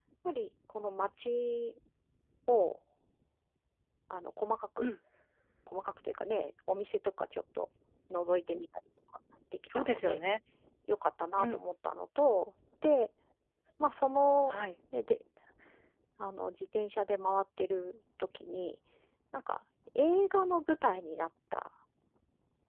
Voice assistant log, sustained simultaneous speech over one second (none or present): none